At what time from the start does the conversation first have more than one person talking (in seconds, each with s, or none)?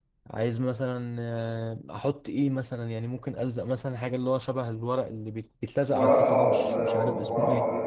5.9 s